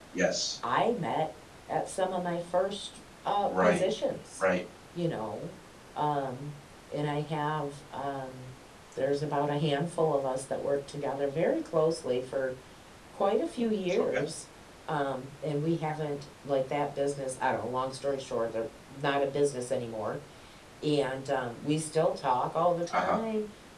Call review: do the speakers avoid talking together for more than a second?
Yes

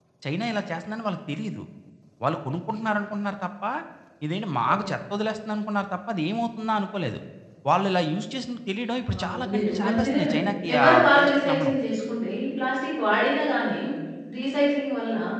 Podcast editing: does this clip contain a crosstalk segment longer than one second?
Yes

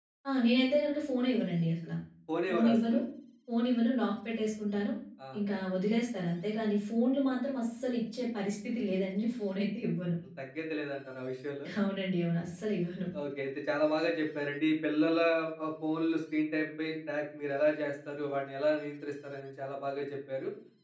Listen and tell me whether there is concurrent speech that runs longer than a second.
No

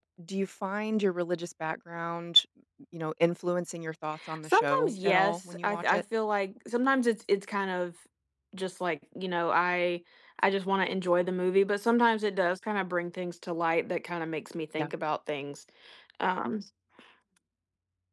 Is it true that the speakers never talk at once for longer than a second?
No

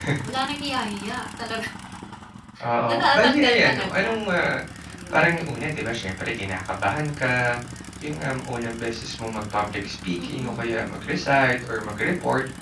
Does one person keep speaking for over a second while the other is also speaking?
Yes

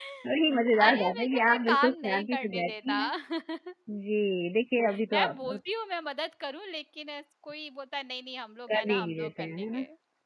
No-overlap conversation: No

